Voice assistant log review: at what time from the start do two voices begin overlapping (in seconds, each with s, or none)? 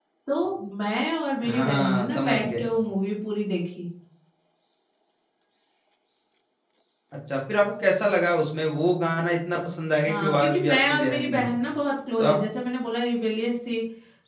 1.4 s